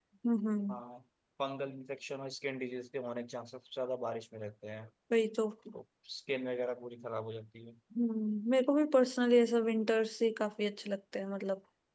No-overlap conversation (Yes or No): Yes